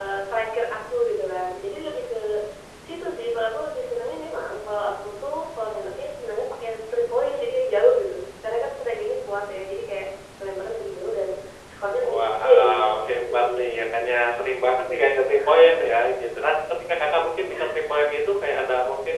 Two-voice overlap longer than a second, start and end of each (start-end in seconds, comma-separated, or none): 12.0-13.6